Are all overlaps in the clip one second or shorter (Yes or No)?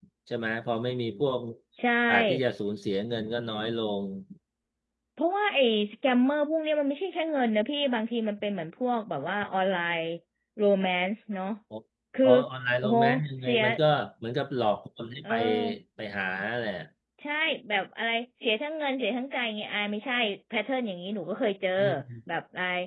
Yes